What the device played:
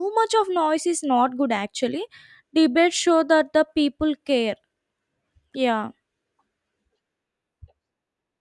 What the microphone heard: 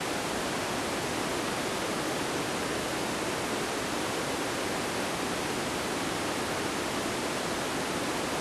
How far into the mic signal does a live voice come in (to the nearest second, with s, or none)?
none